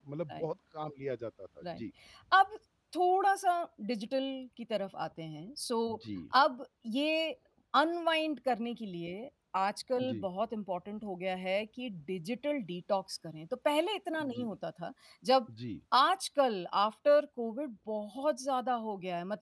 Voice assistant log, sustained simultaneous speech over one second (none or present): none